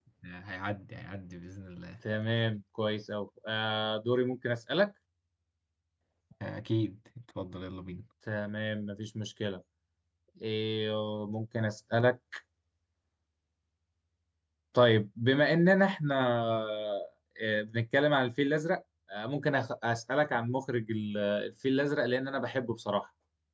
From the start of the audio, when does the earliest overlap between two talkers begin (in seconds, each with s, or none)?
none